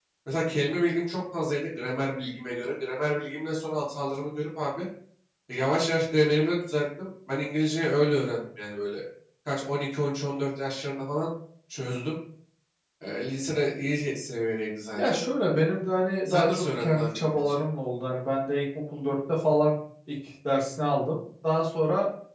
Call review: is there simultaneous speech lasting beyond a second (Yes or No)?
Yes